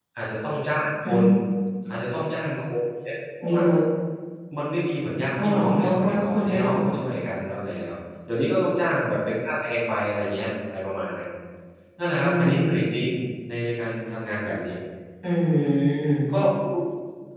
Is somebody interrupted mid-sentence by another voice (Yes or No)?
Yes